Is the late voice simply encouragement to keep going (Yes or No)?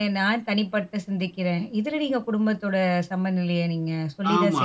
No